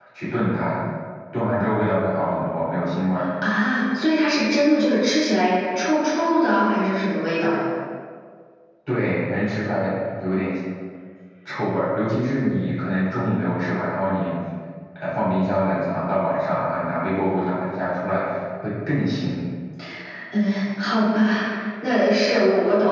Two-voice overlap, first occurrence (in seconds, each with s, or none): none